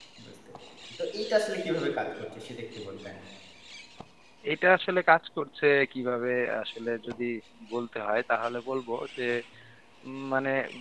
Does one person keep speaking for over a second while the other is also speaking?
No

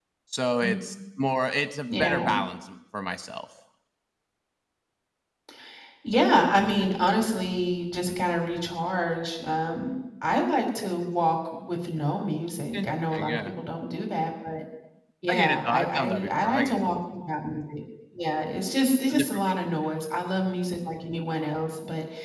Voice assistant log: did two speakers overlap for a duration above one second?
Yes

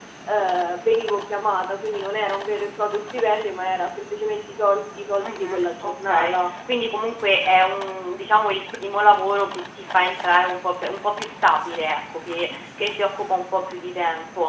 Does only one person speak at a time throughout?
No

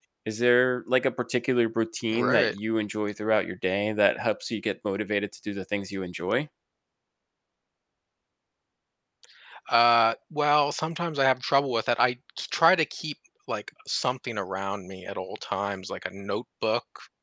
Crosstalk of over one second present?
No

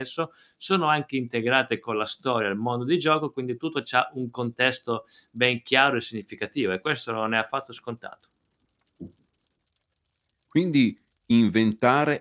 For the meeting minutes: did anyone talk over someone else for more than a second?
No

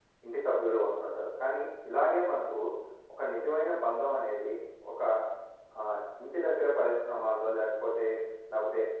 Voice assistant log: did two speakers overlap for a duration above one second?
No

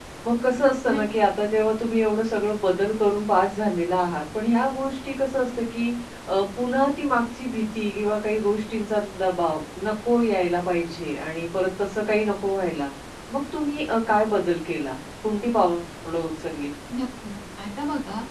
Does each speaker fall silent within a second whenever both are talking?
Yes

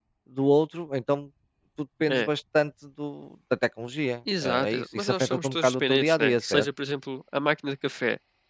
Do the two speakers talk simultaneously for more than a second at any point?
Yes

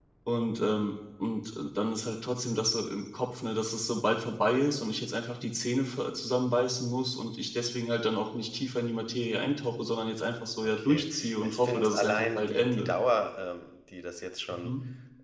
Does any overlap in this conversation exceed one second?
Yes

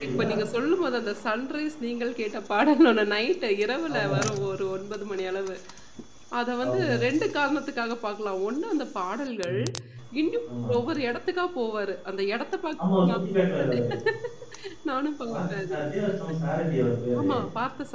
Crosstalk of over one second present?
No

